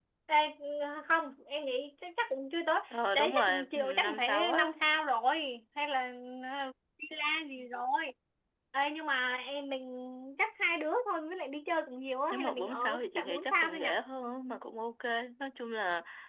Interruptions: present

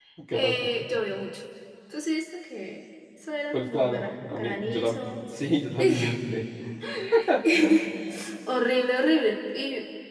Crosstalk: present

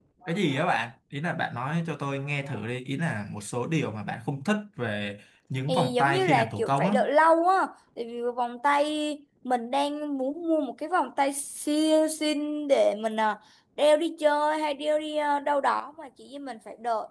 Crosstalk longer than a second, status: present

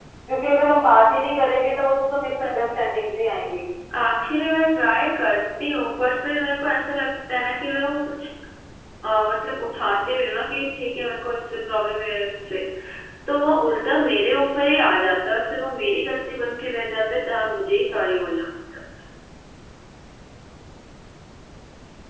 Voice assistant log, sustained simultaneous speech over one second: none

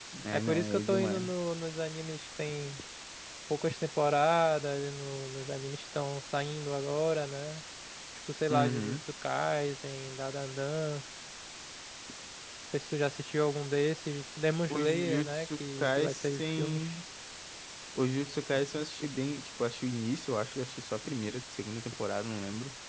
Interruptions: present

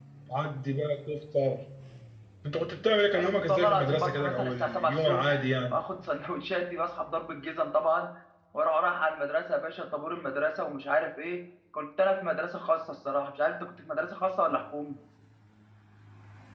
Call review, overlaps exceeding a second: present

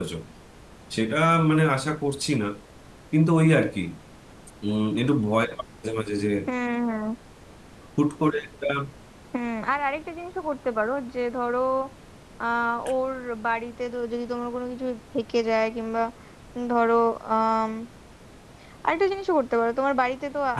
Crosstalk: none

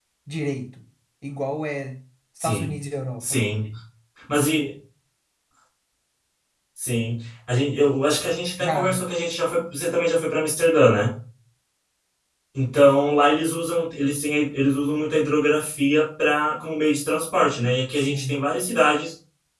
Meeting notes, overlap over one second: none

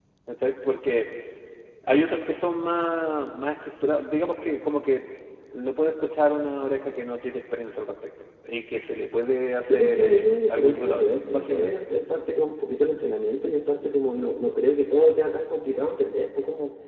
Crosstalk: present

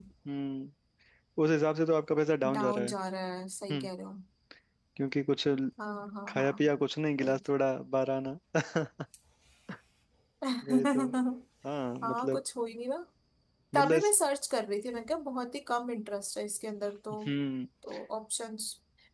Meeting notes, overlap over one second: none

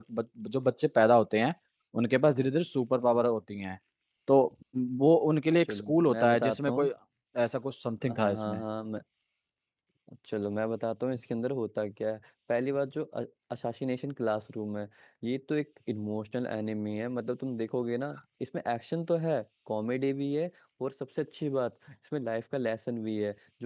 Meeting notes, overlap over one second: present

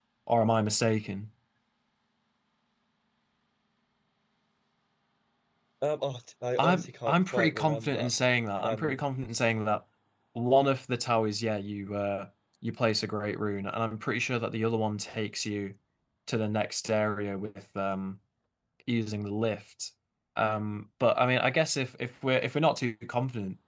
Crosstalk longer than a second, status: present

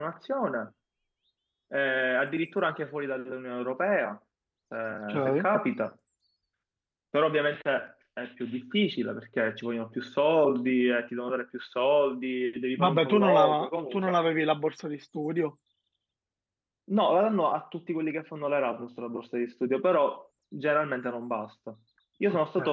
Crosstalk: present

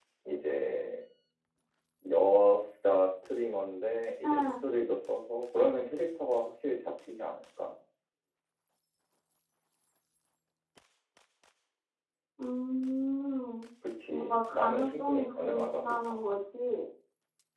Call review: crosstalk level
present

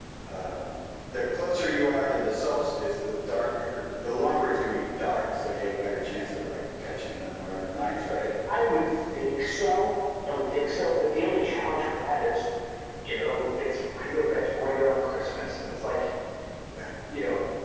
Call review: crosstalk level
none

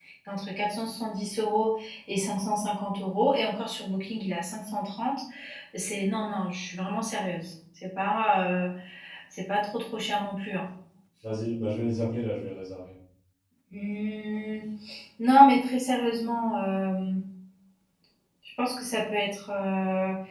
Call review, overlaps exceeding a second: none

